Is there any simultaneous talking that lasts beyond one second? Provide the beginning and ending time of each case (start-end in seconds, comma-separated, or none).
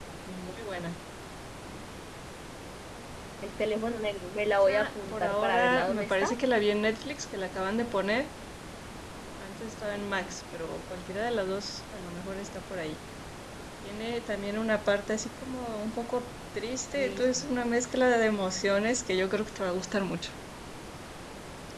4.7-6.3